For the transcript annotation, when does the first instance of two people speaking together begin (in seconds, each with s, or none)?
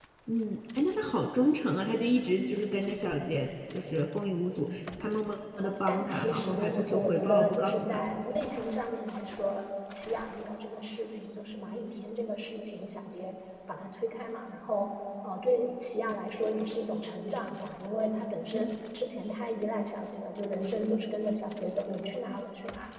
5.5 s